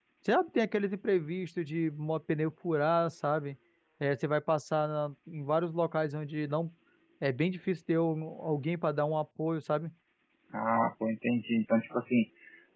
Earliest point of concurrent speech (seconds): none

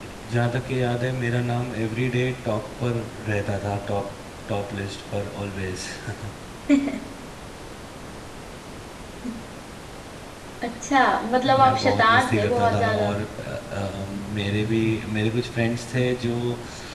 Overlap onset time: 11 s

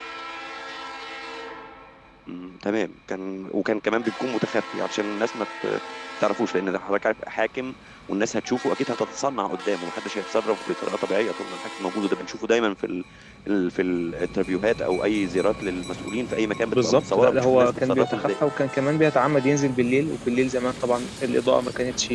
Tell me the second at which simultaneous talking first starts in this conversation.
17 s

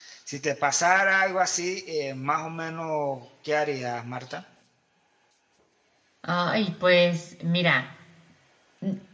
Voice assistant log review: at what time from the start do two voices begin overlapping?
none

